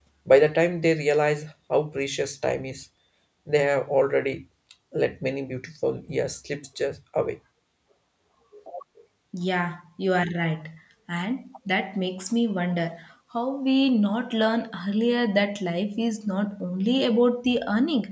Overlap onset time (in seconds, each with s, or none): none